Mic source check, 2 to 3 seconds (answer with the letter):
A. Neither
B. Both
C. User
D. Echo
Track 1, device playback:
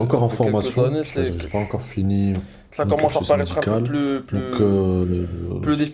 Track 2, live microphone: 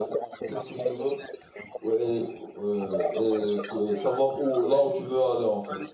B